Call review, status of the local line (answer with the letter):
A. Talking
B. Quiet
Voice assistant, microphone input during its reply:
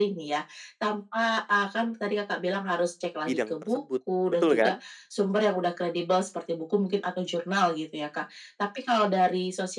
A